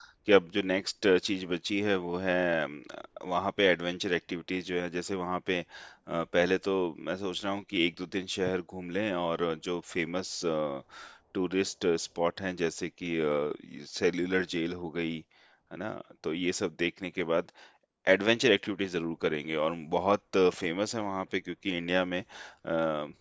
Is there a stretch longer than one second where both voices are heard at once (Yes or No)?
No